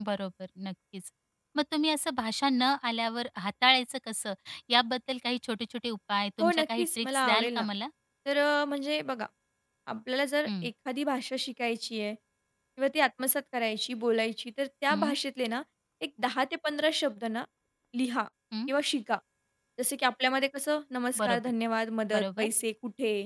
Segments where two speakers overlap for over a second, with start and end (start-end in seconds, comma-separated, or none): 6.4-7.6